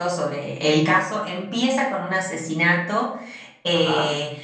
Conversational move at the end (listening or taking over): listening